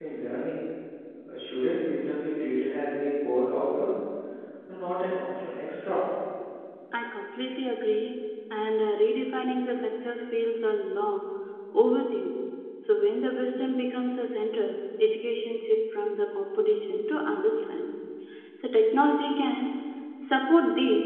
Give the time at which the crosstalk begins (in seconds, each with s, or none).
none